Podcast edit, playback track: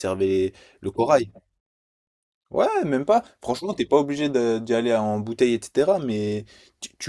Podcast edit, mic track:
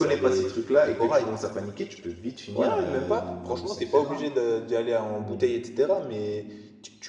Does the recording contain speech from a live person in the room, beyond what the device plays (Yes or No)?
Yes